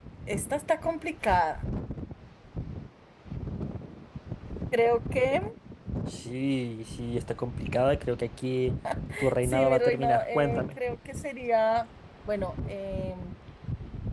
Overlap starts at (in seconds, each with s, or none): 9.4 s